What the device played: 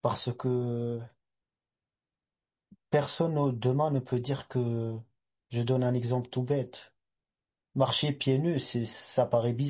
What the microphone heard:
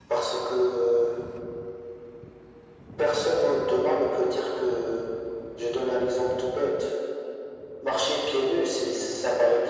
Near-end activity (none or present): none